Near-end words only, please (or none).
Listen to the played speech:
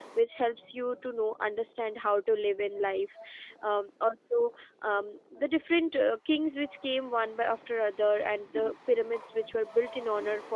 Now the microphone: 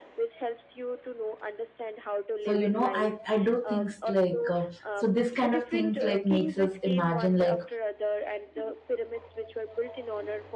so you know i i do things like uh, so this kind of things like makes us imagine like